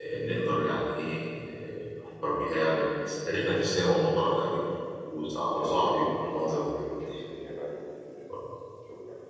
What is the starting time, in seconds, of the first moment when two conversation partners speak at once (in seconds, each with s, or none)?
5.4 s